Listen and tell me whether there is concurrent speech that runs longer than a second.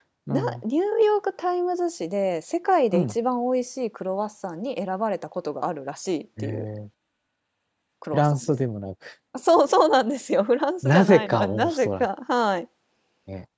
Yes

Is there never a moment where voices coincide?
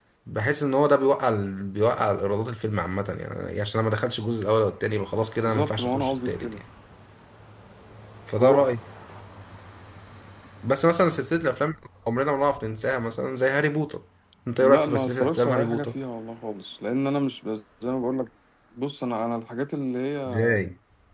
No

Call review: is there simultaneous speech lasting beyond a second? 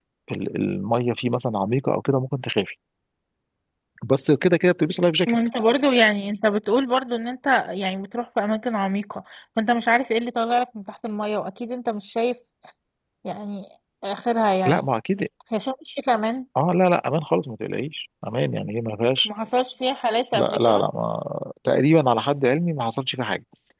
No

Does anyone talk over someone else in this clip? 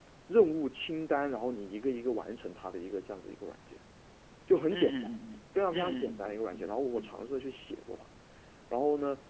Yes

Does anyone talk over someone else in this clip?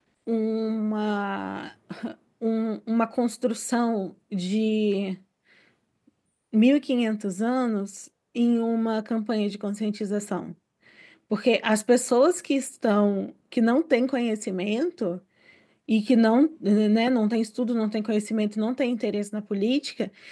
No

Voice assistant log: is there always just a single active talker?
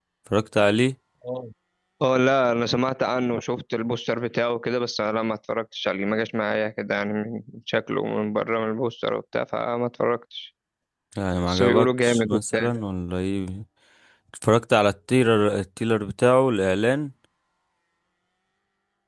No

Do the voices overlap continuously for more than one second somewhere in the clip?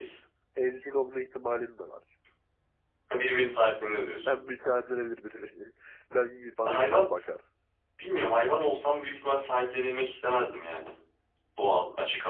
No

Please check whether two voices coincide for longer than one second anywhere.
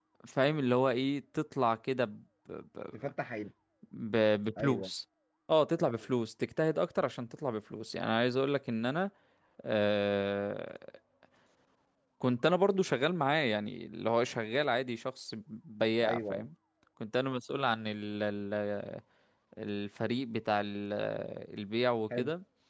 No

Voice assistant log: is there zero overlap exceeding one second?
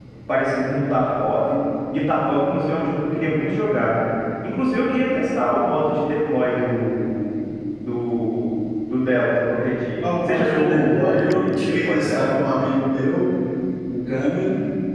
No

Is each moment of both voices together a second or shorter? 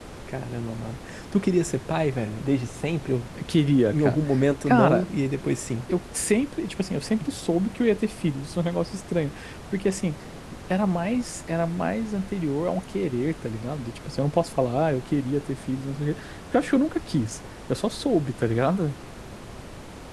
Yes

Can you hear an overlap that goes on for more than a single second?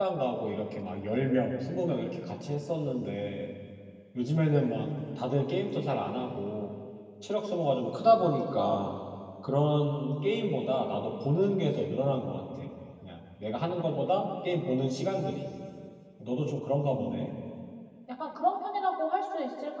No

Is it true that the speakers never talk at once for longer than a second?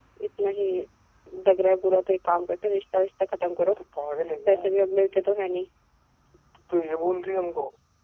Yes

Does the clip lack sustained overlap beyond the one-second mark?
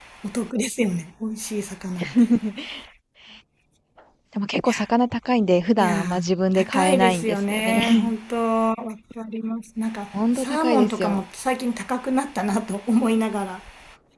No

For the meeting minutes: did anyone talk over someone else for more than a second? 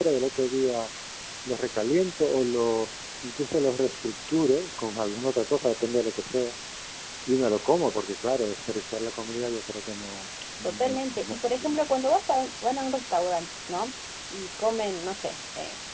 Yes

